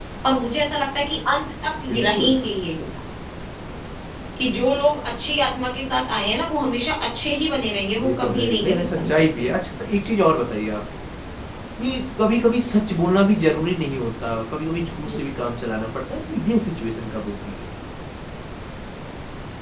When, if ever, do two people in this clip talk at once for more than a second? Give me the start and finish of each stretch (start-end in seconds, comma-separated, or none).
8.0-9.5